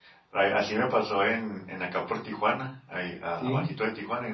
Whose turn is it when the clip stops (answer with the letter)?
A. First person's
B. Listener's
A